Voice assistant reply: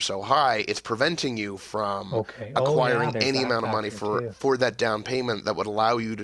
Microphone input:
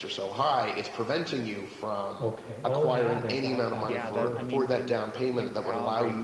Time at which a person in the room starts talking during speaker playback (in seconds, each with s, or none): 3.8 s